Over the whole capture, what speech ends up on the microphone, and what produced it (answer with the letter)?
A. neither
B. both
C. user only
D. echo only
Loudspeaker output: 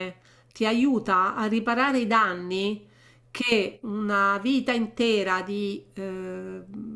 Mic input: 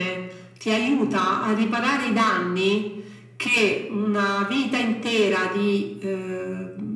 D